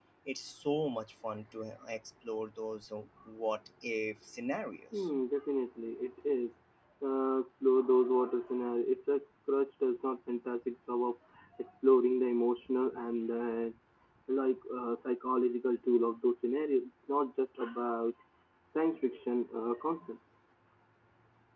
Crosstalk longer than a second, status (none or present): none